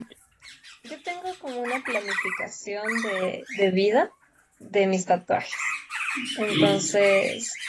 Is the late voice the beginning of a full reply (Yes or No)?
No